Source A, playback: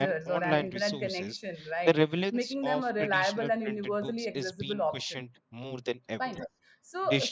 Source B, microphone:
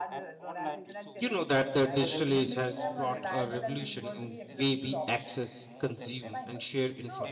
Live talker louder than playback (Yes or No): Yes